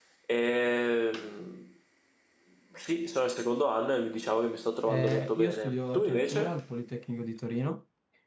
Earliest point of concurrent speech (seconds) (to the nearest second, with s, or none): 5 s